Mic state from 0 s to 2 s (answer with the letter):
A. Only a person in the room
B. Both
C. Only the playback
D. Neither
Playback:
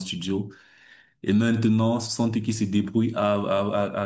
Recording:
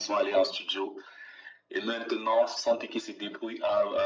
C